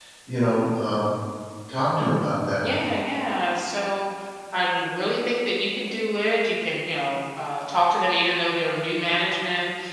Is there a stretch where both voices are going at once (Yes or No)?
No